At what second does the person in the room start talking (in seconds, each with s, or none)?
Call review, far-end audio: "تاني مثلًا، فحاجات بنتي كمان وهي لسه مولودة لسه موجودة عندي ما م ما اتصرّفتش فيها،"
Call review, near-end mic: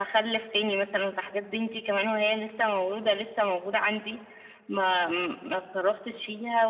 none